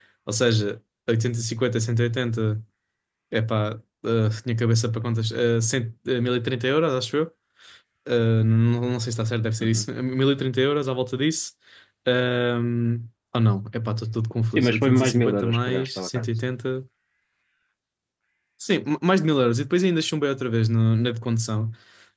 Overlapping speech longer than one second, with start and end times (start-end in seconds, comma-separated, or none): 14.6-16.2